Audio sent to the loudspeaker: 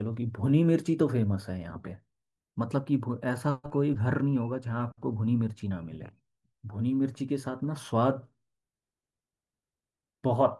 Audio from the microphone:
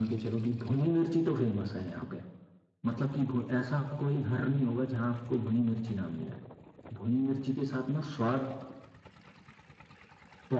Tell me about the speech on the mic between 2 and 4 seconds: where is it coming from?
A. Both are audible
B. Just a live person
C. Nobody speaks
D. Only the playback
D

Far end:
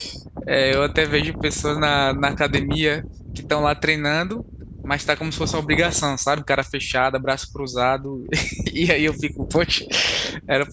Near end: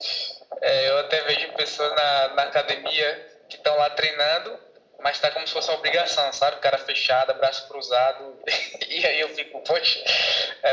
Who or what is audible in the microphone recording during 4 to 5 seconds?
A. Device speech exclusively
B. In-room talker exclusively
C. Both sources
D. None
A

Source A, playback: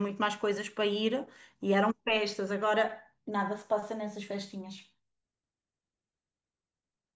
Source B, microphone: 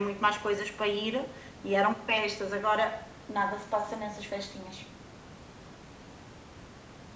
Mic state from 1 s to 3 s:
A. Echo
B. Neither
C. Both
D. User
A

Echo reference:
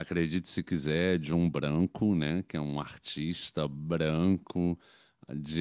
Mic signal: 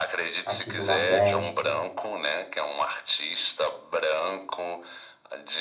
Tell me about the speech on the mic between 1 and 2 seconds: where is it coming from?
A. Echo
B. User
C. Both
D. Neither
C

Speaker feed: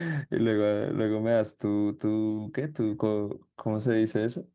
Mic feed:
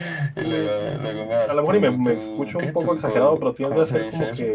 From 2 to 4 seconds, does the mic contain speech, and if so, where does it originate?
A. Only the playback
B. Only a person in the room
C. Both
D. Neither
C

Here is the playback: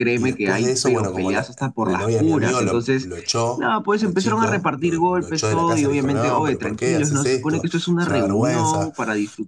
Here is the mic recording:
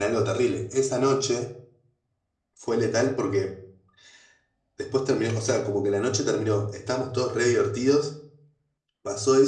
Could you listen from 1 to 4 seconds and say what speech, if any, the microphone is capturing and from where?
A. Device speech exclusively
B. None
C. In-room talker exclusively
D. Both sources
C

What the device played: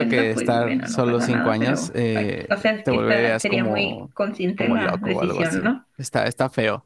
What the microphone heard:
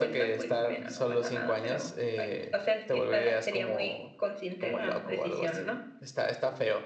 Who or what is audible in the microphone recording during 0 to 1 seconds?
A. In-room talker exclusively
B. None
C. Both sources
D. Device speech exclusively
C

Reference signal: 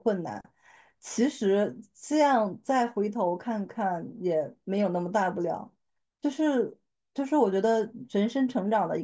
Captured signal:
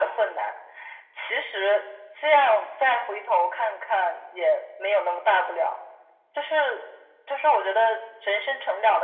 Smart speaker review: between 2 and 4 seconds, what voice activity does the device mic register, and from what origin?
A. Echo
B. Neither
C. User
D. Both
A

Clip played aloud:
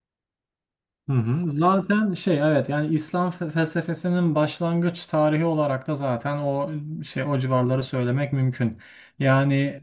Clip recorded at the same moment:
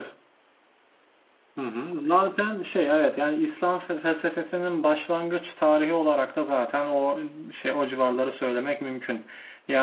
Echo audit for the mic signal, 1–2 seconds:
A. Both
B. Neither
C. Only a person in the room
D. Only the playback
D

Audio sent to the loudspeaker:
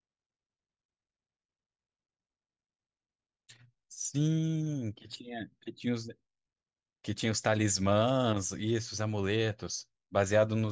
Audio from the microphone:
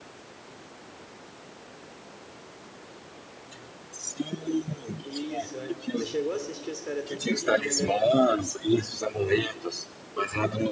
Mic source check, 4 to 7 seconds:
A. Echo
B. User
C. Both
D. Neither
C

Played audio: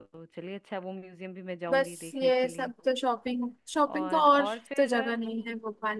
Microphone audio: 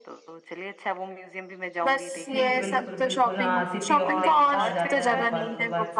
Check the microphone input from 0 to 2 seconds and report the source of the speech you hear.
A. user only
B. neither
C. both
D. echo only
D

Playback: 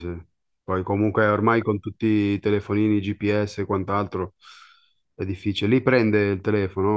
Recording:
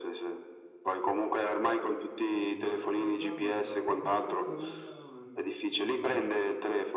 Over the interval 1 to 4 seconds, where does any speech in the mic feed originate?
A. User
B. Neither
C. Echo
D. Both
D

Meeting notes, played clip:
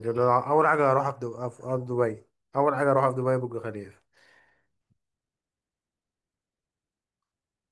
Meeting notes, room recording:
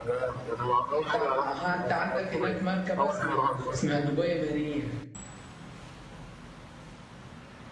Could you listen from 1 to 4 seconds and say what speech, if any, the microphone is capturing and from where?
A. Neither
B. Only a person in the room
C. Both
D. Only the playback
C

